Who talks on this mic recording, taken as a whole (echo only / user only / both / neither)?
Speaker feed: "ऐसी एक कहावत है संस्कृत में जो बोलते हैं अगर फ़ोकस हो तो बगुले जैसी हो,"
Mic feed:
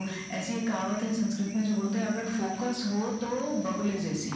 echo only